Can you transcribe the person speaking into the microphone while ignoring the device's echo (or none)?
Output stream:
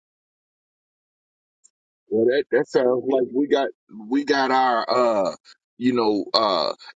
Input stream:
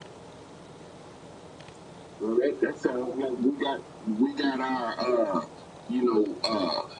none